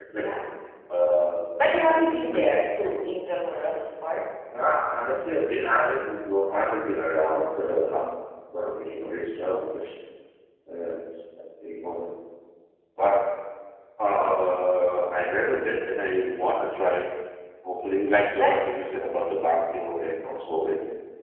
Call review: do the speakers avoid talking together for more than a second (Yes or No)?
Yes